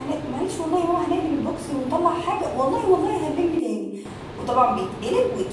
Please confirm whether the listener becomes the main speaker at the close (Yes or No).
No